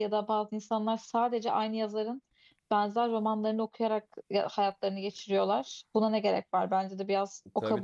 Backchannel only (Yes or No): No